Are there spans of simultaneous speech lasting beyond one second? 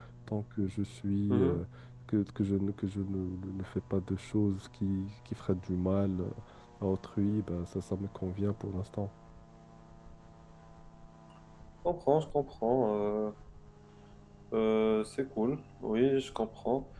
No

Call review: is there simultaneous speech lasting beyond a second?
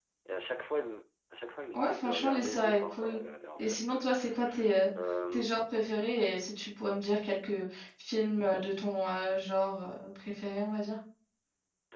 Yes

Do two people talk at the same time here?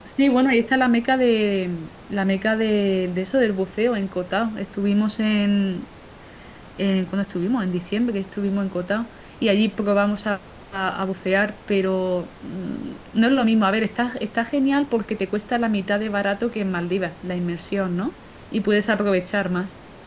No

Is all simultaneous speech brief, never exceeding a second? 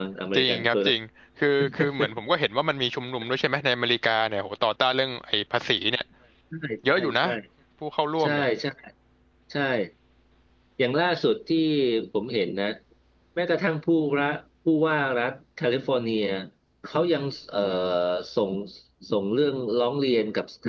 Yes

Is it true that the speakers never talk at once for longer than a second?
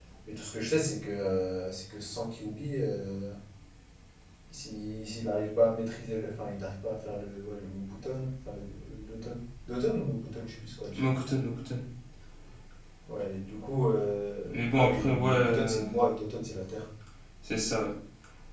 No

